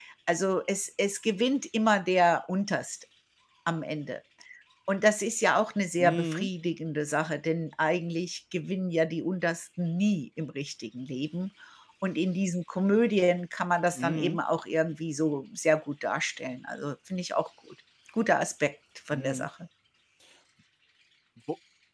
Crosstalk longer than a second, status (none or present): none